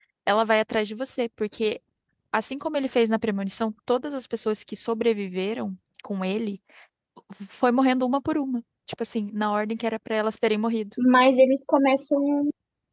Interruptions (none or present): none